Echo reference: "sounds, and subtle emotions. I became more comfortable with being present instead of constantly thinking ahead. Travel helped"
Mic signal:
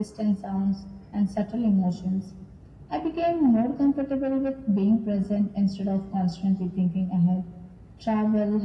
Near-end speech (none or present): none